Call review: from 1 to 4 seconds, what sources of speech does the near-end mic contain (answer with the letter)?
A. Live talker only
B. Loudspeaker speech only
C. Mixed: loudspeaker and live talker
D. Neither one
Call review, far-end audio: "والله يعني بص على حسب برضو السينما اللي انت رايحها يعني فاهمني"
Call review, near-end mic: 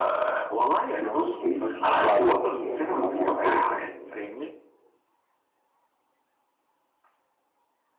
C